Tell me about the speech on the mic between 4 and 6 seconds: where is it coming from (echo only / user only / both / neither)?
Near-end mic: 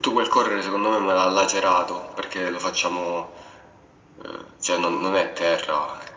echo only